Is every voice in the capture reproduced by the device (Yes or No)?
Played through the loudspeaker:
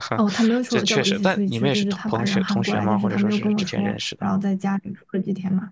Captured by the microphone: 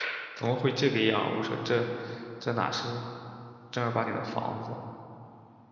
No